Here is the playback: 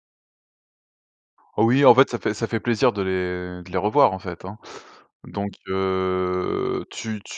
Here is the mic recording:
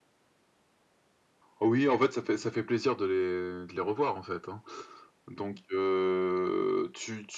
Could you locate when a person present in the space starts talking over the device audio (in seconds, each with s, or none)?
none